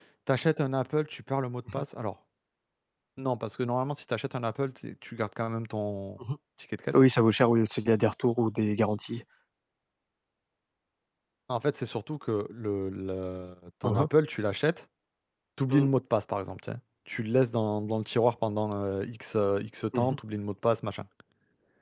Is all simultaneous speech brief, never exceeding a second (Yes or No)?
Yes